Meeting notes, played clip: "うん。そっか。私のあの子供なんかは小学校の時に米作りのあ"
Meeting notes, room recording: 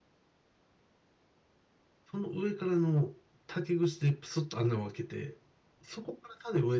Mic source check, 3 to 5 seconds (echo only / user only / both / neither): user only